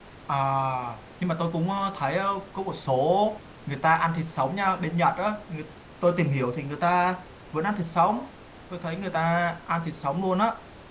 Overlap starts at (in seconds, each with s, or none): none